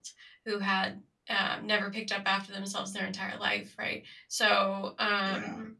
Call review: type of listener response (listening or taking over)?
listening